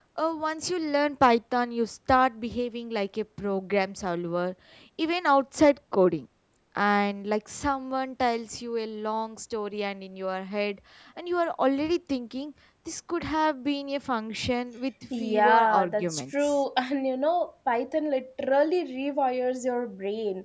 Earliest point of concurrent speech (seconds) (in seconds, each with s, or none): 15.1 s